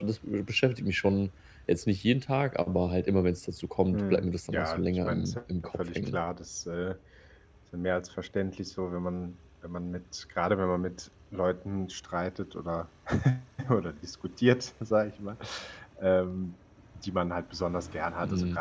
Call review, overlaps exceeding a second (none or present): present